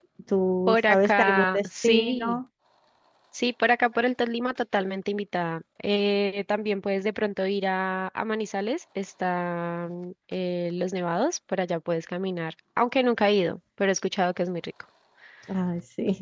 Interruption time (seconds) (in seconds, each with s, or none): 0.7 s